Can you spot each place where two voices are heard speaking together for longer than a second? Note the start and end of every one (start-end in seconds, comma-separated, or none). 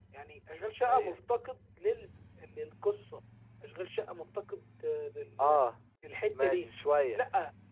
none